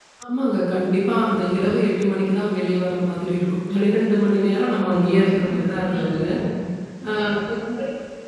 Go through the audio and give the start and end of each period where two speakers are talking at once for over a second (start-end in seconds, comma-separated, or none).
4.8-6.2